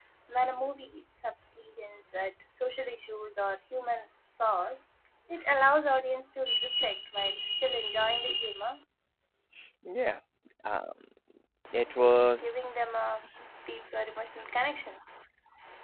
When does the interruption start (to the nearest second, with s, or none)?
12 s